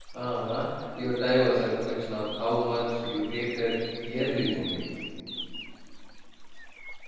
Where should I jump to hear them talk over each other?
none

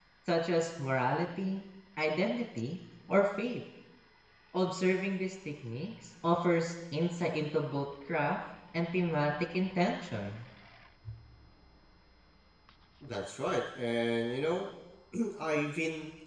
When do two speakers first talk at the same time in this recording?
none

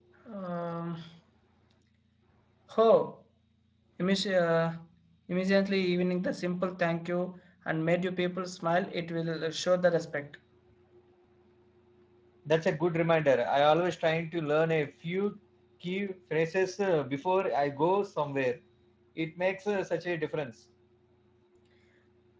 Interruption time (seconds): none

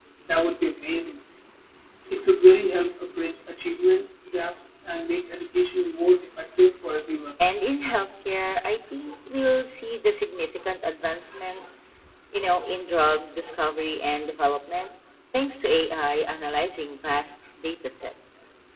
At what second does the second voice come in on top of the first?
none

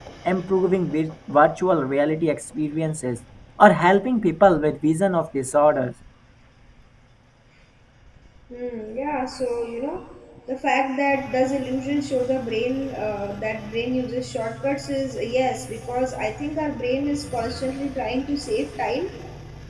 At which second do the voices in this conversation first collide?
none

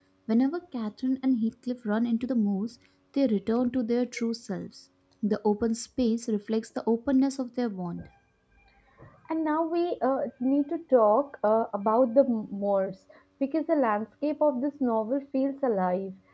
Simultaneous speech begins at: none

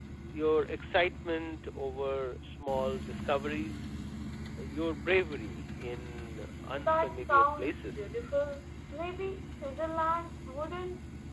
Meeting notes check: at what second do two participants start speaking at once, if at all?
6.7 s

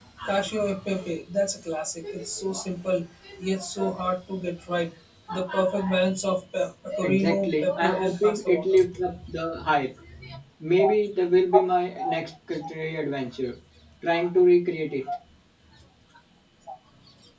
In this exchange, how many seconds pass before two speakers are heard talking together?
7.0 s

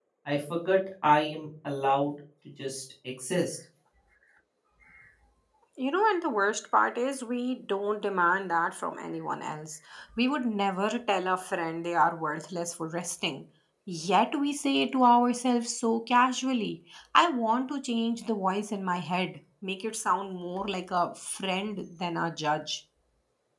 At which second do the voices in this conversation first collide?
none

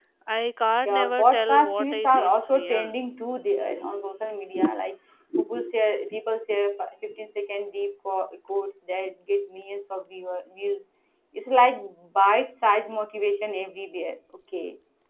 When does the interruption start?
0.8 s

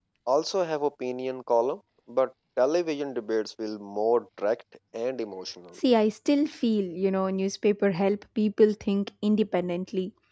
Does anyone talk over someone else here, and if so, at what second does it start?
none

